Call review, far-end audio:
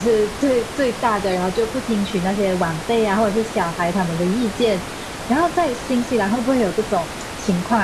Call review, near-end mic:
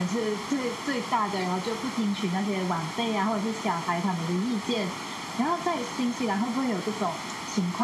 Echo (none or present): present